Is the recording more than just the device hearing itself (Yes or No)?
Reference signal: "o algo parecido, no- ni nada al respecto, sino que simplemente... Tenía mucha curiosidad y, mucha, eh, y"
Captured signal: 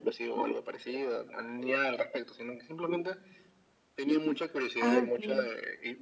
Yes